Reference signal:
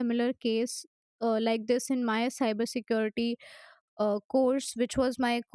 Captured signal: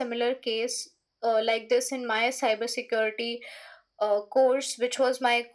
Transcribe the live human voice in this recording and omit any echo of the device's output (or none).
none